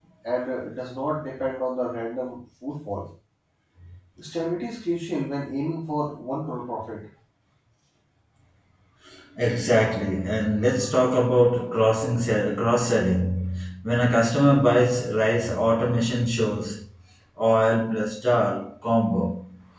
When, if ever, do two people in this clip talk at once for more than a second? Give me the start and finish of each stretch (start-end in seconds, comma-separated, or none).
none